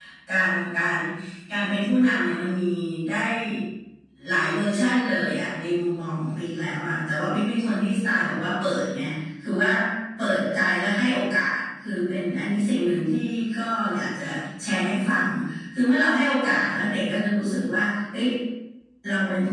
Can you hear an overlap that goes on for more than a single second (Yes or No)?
No